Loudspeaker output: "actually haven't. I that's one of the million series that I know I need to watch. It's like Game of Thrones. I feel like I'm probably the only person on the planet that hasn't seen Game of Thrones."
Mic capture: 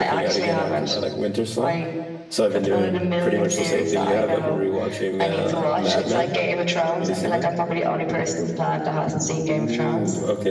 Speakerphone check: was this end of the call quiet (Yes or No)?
No